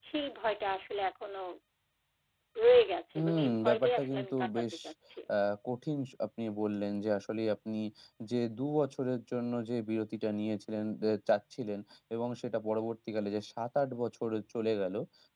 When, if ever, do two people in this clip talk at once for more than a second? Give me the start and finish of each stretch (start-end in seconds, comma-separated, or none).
3.1-4.6